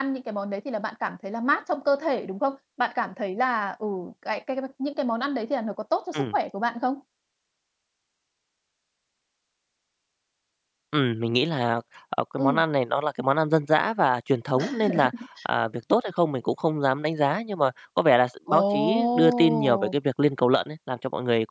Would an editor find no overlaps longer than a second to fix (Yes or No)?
No